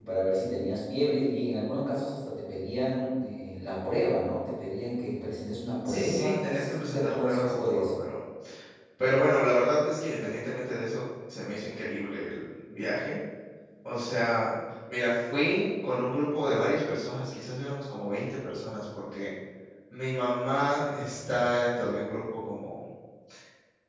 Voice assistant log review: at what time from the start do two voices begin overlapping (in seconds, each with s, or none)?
5.8 s